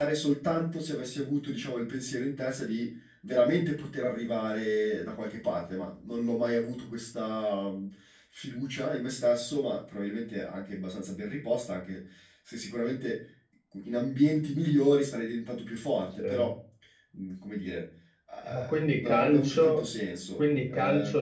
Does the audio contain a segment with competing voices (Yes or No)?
Yes